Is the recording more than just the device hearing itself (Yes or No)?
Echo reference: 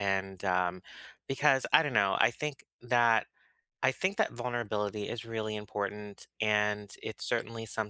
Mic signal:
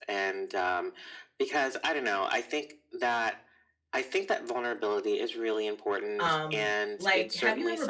Yes